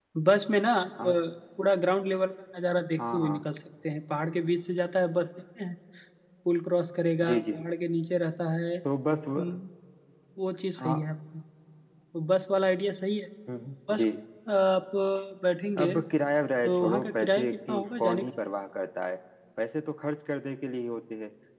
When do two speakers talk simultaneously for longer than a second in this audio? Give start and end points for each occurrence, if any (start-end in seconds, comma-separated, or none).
16.6-18.3